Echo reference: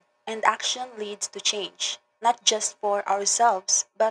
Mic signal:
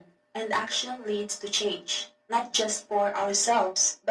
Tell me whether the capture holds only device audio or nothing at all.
Yes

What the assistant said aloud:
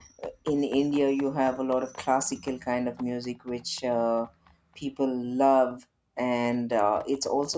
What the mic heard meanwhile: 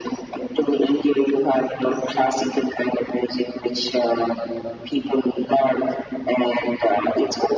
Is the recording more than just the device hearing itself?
No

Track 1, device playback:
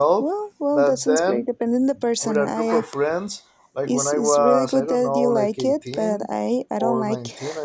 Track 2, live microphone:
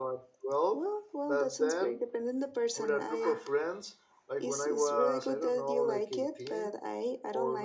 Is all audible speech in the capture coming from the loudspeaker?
Yes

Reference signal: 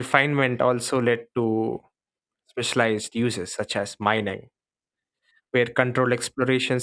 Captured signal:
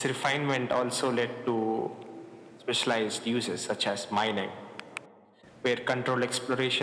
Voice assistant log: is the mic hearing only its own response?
Yes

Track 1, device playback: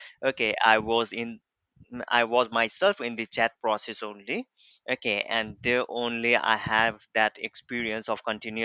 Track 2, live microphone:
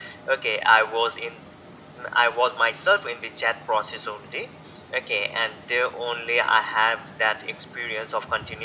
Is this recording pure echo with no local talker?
Yes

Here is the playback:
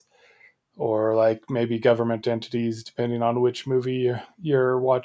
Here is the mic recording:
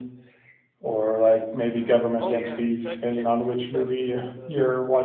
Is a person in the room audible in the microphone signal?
Yes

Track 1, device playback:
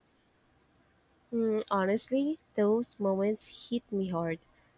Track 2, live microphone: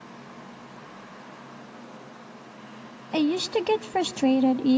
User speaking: Yes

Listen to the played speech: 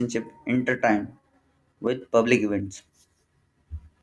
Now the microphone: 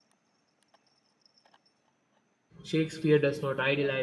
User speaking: Yes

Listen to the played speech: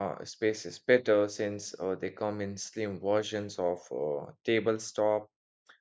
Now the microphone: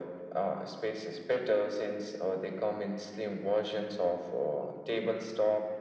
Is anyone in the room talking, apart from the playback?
No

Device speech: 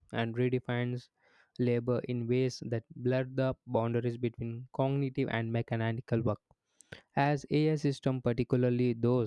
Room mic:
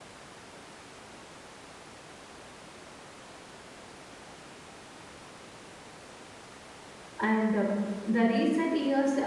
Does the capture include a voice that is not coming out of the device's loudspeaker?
Yes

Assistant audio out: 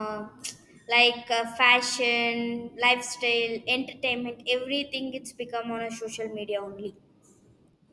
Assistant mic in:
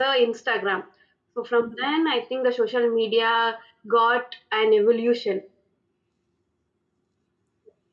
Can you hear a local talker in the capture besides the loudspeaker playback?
Yes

